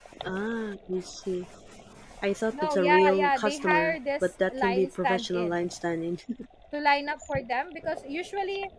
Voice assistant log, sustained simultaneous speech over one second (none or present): present